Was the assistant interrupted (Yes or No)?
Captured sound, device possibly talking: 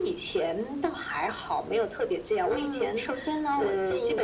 No